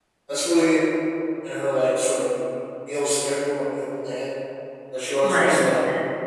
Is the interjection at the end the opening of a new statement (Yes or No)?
No